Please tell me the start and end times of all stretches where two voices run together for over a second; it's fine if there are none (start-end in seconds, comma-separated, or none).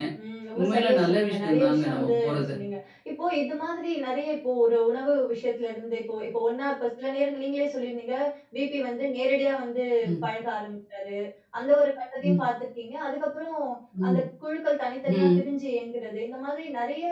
0.6-2.5